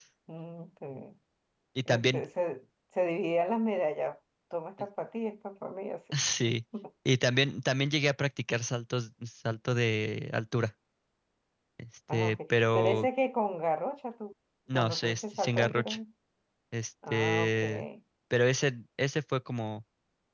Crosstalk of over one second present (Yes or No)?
Yes